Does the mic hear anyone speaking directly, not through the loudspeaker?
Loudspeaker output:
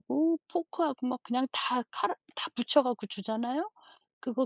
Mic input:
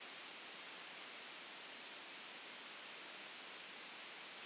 No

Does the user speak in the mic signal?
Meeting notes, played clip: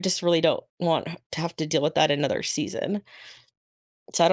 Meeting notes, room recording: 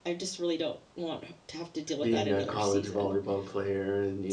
Yes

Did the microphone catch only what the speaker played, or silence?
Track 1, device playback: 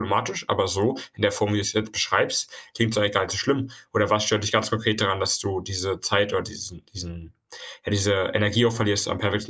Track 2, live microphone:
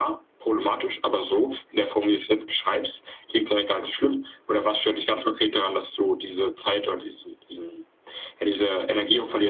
Yes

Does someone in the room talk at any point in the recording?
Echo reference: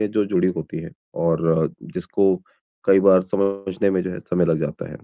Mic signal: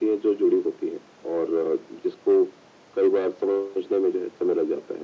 No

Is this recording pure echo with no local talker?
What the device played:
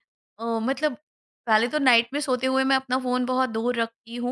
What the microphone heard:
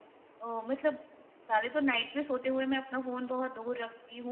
Yes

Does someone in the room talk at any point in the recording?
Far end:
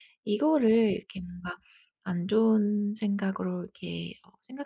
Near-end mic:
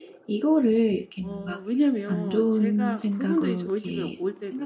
Yes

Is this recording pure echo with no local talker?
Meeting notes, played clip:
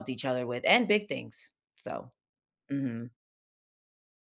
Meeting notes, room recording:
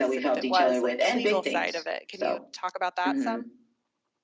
No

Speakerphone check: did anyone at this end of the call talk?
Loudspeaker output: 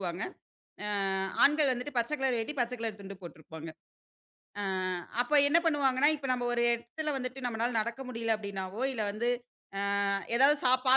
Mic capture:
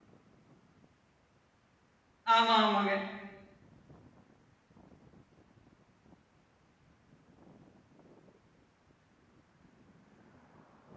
Yes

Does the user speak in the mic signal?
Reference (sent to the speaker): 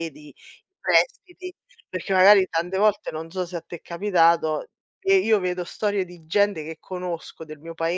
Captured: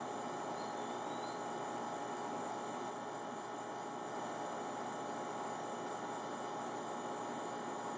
No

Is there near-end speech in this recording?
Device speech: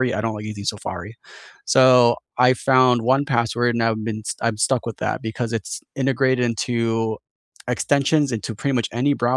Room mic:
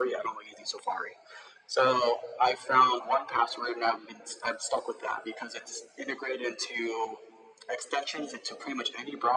No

